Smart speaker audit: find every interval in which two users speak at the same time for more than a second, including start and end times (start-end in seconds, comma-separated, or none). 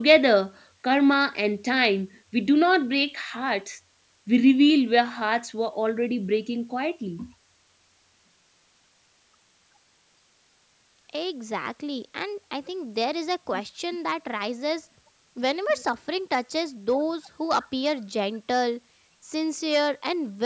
none